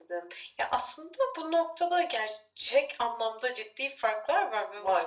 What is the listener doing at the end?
listening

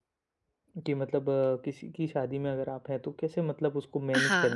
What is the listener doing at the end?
taking over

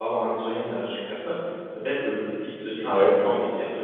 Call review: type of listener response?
listening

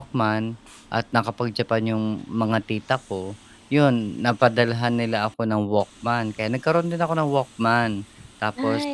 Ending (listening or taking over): listening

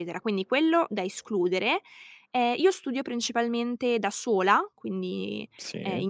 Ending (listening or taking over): listening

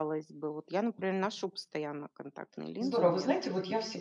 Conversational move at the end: taking over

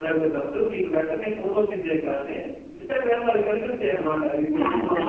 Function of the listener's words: listening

